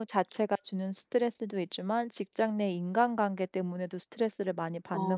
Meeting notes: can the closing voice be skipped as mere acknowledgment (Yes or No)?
No